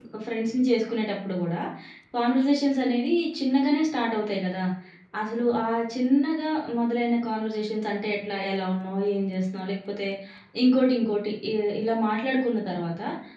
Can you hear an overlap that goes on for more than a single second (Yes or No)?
No